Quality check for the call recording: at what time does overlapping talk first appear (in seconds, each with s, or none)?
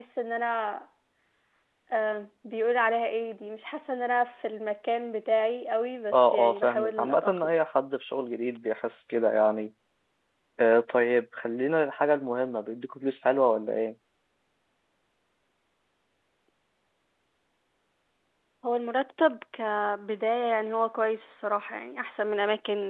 6.1 s